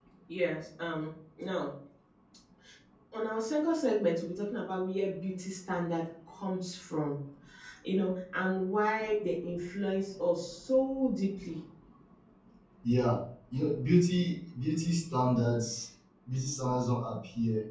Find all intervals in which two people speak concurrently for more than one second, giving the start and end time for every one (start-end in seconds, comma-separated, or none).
none